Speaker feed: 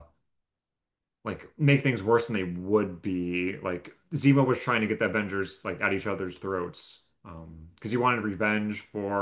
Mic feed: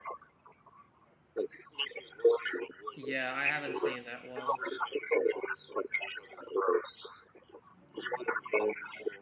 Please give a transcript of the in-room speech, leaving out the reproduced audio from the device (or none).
Yeah, I haven't seen that one.